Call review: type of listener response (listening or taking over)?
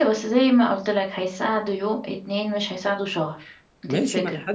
taking over